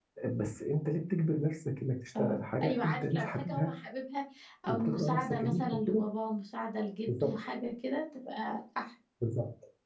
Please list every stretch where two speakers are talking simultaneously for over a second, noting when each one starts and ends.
2.2-3.7, 4.7-6.1

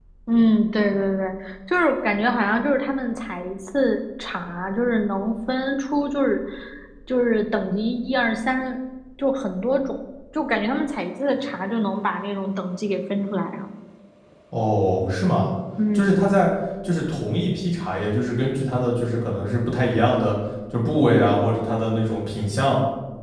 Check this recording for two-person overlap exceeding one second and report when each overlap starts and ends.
none

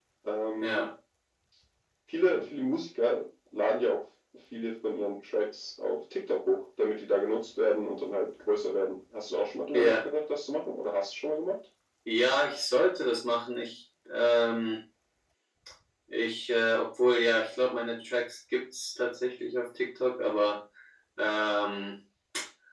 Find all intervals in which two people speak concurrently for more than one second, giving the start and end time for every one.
none

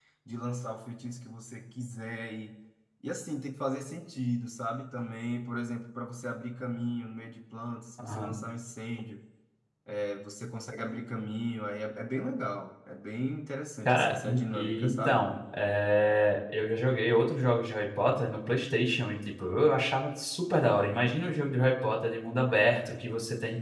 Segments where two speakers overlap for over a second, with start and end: 13.8-15.2

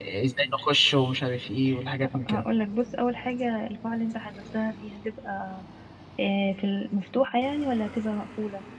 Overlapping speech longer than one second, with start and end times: none

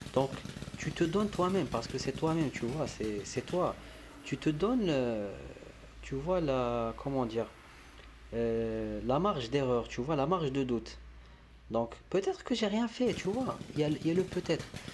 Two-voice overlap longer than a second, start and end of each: none

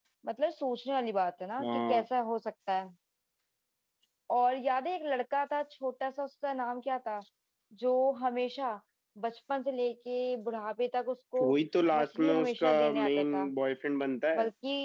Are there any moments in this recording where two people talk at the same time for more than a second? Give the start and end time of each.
11.9-13.5

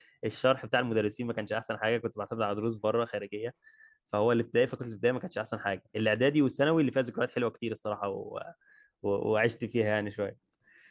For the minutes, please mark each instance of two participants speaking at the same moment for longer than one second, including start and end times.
none

